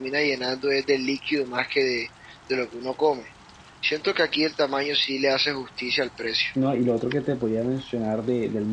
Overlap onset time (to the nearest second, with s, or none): none